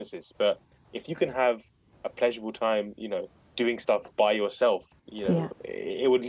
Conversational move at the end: listening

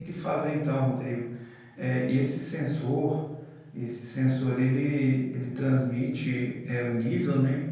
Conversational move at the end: listening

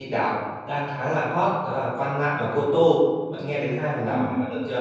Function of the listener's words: taking over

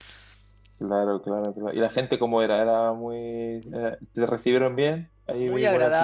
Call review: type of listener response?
taking over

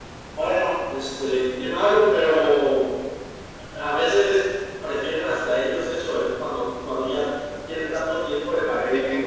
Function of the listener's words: taking over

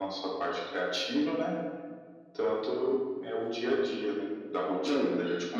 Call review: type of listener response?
taking over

